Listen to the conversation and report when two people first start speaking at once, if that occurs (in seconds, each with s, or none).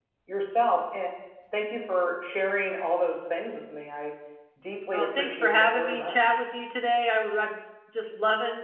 4.9 s